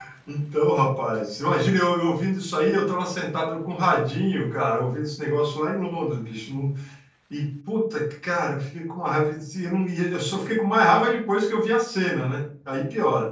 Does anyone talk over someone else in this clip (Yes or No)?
No